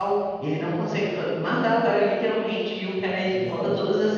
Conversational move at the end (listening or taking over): listening